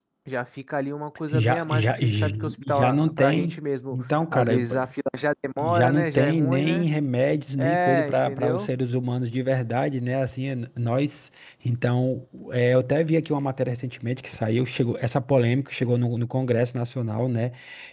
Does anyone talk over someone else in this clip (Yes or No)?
Yes